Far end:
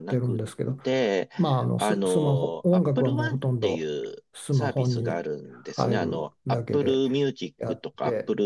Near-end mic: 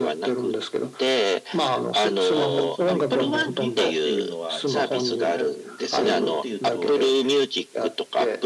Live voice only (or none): あの、その400ギガっていうのは、じゃあどこから出てるのっていうと、